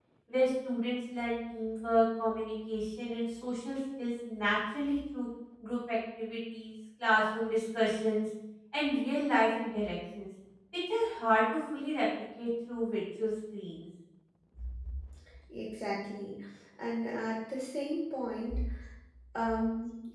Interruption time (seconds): none

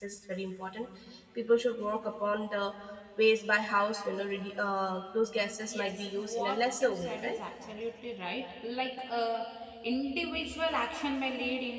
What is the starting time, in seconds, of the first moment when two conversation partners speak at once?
5.7 s

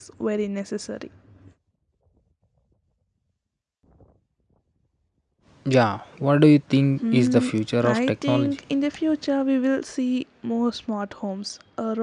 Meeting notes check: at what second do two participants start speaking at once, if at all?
7.0 s

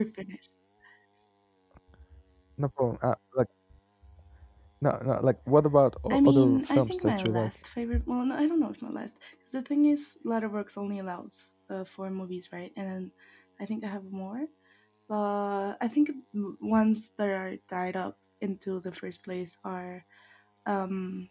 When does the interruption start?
6.1 s

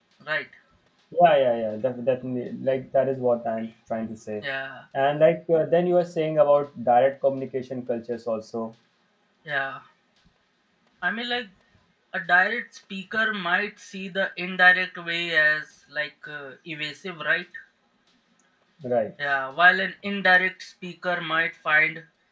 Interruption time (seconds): none

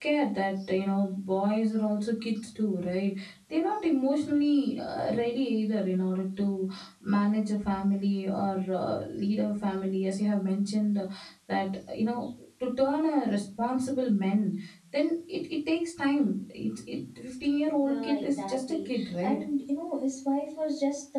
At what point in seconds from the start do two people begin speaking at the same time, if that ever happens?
17.8 s

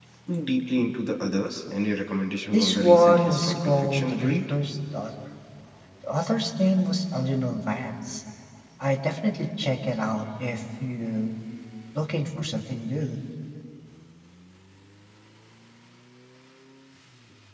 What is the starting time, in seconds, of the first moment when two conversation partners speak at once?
2.5 s

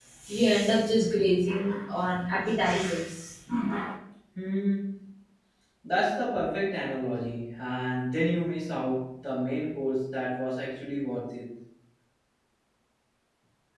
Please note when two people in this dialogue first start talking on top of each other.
none

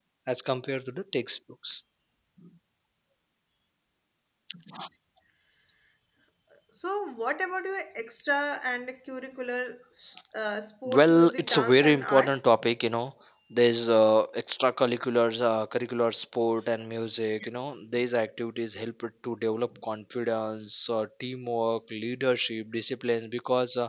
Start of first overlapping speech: 10.8 s

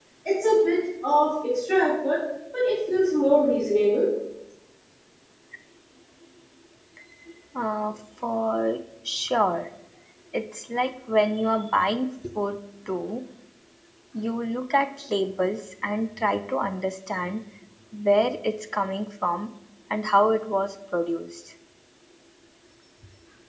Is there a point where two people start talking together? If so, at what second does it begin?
none

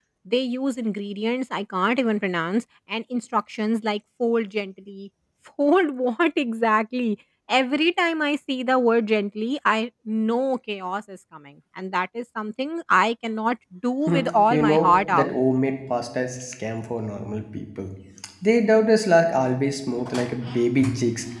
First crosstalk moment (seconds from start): 14.1 s

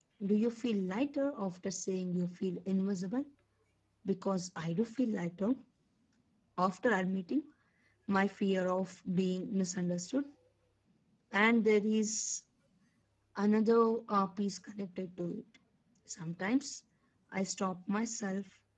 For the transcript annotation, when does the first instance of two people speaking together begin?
none

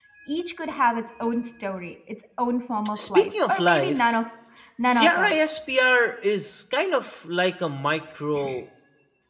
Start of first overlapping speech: 3.0 s

